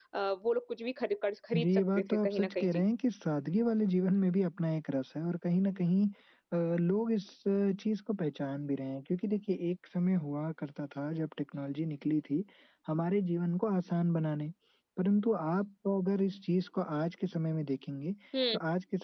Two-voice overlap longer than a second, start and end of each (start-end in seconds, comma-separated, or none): 1.6-2.8